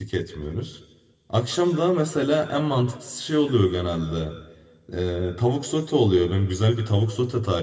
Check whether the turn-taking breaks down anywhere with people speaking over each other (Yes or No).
No